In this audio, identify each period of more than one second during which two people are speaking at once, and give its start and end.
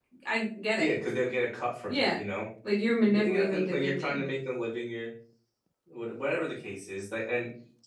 3.0-4.2

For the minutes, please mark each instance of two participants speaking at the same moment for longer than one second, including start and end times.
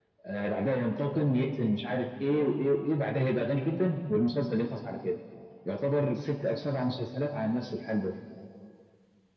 none

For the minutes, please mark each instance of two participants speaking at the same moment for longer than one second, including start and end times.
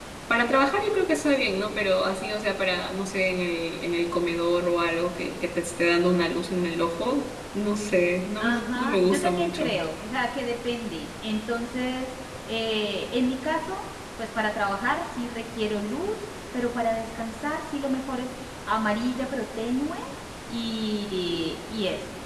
8.4-9.8

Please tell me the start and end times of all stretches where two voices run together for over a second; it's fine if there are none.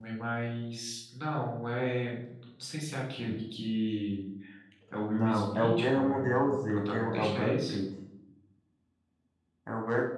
5.2-7.8

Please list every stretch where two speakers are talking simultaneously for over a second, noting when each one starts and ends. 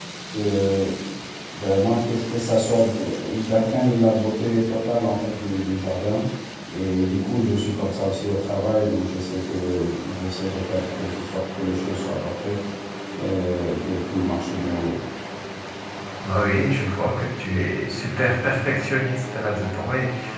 none

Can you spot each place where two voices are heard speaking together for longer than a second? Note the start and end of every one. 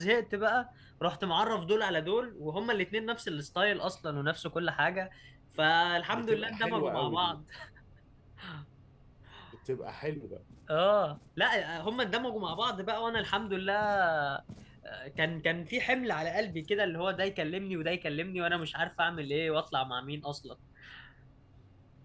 6.1-7.4

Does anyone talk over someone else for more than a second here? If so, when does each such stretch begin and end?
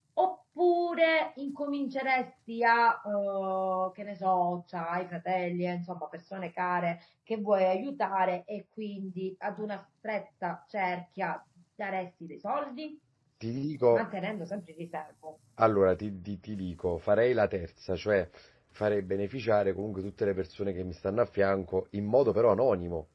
none

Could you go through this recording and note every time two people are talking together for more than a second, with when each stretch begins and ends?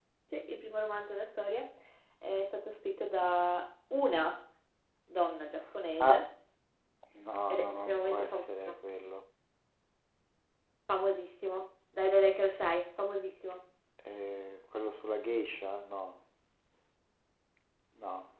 7.5-8.8

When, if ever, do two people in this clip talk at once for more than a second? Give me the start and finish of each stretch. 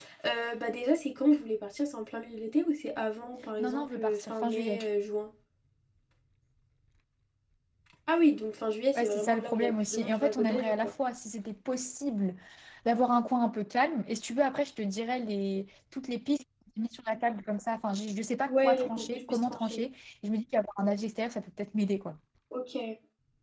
3.6-4.8, 9.0-10.9, 18.5-19.8

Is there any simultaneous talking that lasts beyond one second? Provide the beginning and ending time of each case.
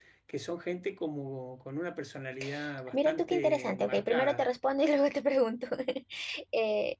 2.9-4.4

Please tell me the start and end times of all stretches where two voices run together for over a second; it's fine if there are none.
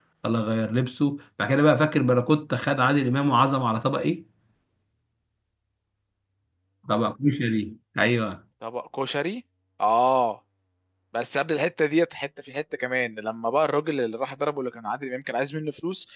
none

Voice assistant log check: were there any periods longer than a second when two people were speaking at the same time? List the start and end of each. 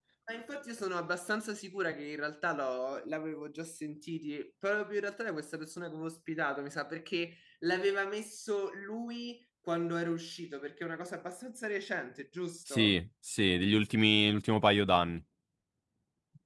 none

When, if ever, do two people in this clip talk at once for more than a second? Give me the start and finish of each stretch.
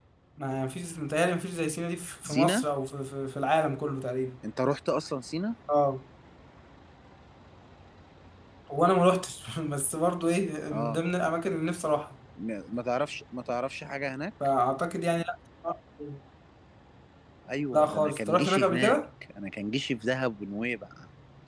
17.7-19.0

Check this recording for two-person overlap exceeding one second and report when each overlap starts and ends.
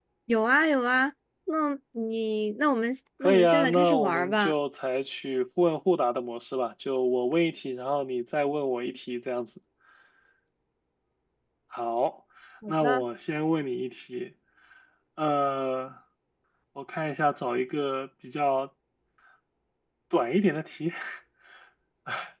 3.2-4.5

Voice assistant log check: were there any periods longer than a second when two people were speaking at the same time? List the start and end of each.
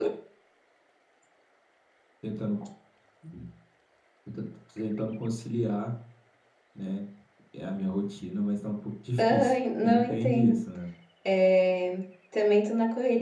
9.2-10.6

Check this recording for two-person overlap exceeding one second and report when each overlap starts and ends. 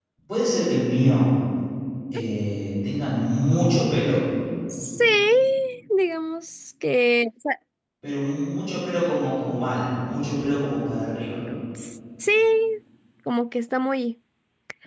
none

